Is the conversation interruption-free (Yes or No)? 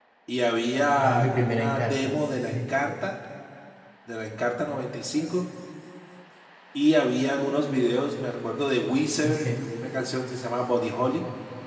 No